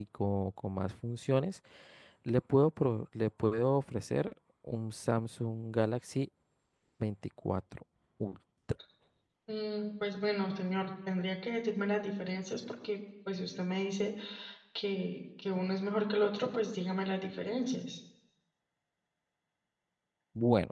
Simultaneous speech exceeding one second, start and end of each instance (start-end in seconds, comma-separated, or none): none